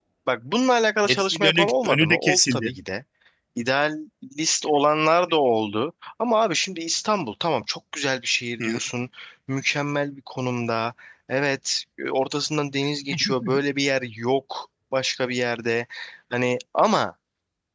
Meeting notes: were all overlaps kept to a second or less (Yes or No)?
No